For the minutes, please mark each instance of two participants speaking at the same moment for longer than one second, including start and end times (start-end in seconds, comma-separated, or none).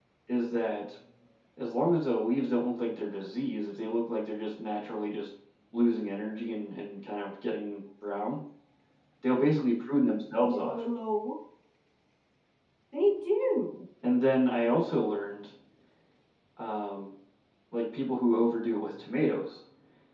none